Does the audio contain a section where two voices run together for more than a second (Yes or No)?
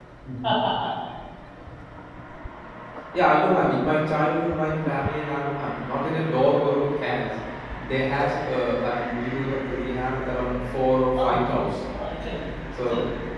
No